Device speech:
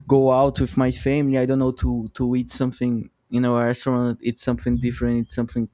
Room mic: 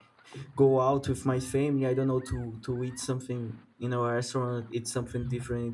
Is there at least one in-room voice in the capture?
No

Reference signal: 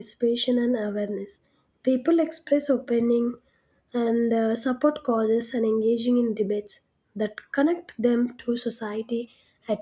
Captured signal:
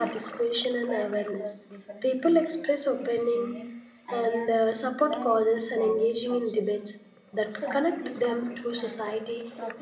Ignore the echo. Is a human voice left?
Yes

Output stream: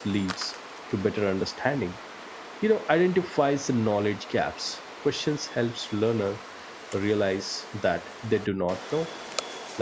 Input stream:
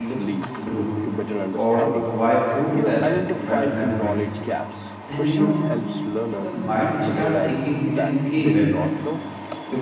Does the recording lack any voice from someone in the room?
No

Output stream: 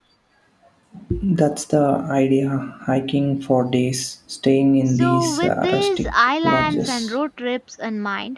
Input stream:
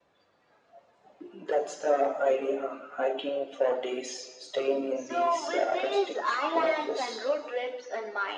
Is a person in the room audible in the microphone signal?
No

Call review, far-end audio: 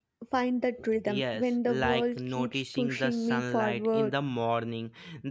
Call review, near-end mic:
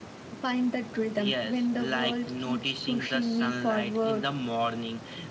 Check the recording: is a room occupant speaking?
No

